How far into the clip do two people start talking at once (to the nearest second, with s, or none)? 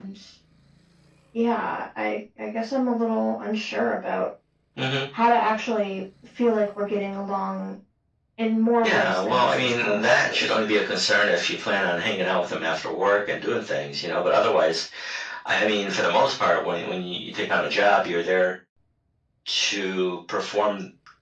9 s